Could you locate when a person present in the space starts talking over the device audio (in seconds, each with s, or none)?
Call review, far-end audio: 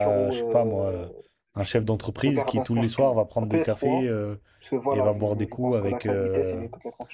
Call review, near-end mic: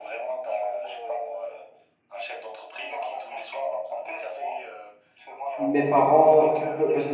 5.6 s